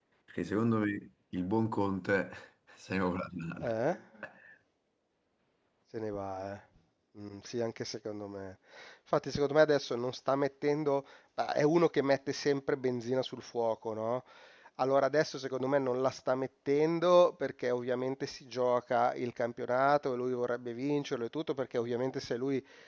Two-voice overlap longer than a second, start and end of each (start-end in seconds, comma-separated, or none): none